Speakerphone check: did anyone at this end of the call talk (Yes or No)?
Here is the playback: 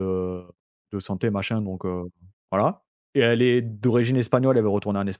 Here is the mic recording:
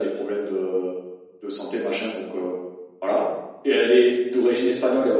No